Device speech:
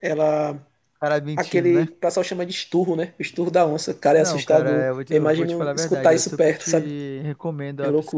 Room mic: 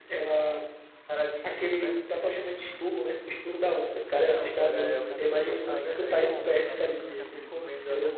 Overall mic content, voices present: both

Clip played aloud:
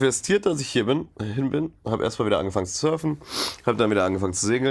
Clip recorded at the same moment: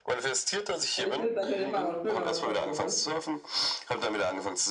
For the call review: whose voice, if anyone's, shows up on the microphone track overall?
both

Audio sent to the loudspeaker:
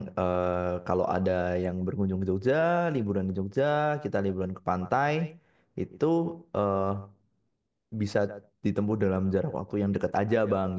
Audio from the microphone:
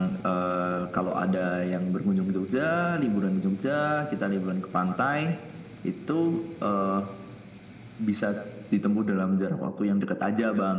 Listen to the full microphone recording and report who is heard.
echo only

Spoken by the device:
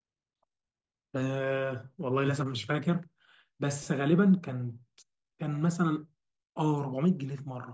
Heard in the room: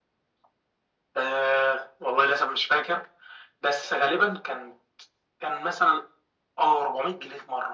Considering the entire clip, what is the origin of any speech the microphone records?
echo only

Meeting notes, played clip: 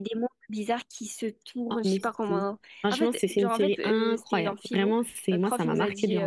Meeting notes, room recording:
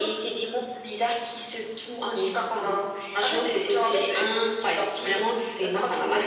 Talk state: echo only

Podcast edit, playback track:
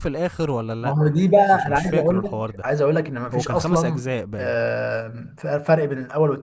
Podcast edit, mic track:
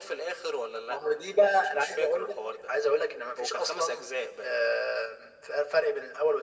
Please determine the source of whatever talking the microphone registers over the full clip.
echo only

